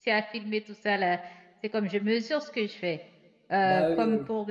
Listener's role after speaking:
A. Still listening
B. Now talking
A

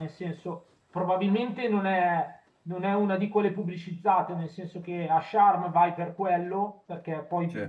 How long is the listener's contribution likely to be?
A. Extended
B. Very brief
B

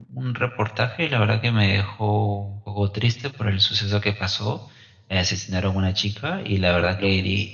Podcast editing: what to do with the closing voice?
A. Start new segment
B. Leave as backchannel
B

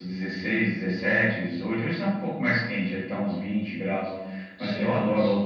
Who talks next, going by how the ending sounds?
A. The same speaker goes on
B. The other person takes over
A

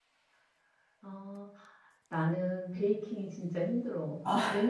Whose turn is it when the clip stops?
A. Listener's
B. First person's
B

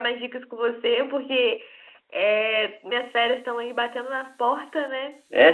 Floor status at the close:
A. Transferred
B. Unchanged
A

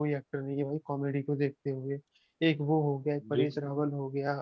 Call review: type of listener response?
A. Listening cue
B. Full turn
A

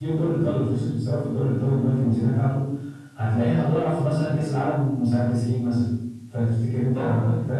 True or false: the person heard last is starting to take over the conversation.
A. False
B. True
B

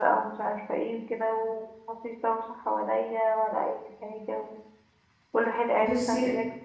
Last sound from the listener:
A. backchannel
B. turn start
A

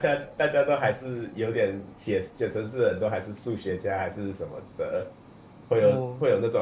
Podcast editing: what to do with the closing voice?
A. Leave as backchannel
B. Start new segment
A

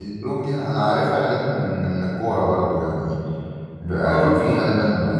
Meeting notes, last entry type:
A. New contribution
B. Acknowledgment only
B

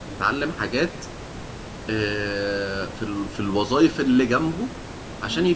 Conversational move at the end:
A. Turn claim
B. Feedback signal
B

